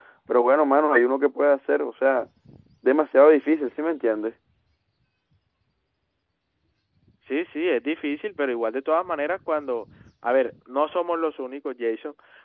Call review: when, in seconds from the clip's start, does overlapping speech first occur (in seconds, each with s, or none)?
none